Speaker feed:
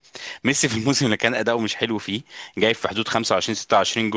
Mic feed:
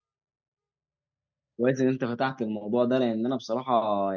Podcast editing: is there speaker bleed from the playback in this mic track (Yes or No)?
No